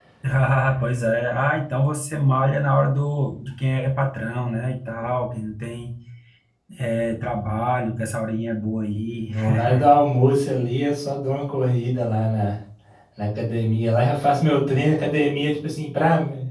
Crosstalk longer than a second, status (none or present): none